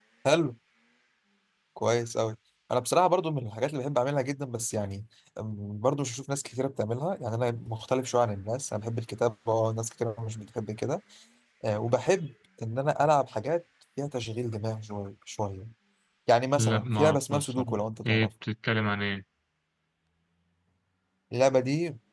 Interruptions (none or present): present